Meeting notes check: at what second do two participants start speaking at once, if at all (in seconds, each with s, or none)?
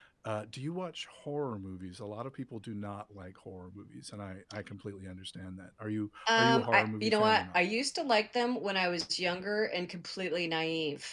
6.3 s